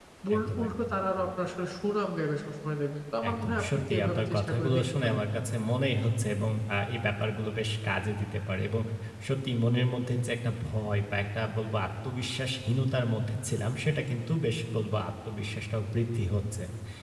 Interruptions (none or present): present